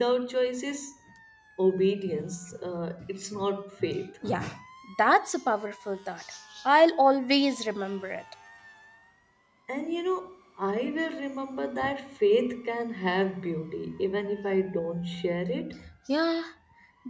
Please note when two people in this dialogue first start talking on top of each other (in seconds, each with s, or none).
none